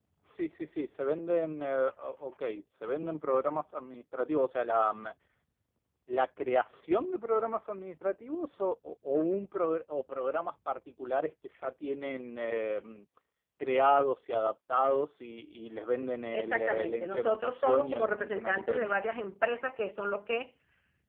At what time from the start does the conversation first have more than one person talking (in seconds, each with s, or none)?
16.3 s